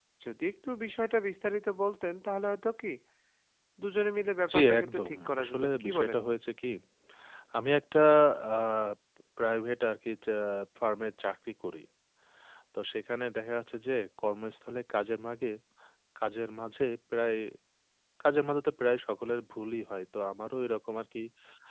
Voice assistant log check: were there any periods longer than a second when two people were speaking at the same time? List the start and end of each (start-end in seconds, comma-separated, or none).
4.5-6.2